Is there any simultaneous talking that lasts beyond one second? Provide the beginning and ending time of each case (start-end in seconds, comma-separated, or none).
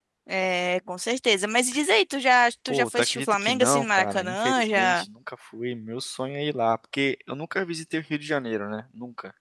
2.7-5.0